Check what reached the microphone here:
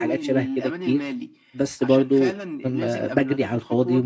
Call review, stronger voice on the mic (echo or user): user